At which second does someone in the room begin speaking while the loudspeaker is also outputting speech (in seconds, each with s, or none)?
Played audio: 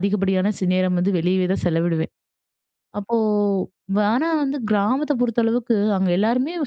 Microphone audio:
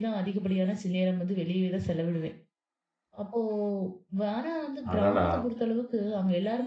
4.9 s